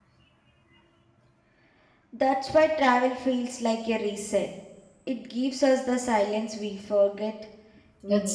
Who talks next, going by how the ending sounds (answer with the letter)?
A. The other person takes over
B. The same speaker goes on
A